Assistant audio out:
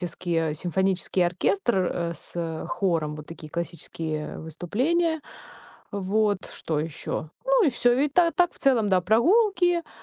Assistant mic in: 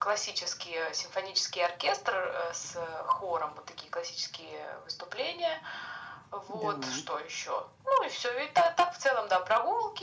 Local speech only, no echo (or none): Н-да.